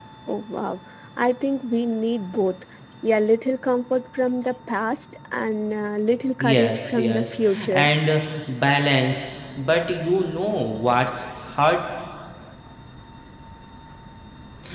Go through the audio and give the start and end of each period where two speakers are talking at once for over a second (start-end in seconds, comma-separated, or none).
6.4-7.9